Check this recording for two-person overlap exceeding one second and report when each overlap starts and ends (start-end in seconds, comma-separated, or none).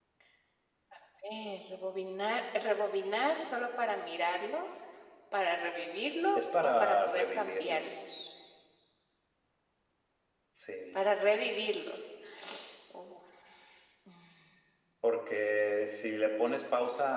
6.4-8.0